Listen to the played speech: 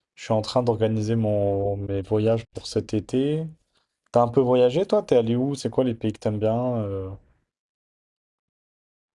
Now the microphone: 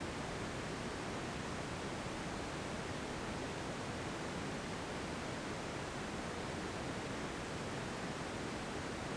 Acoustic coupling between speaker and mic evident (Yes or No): No